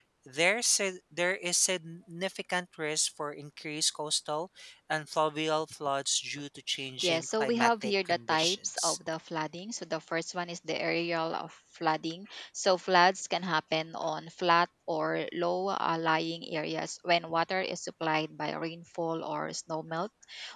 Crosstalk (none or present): present